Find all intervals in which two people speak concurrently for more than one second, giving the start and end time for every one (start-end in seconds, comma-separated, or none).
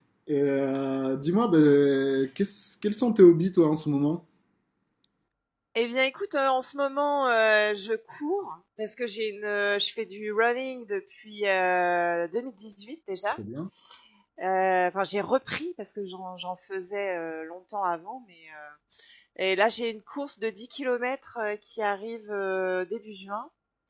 none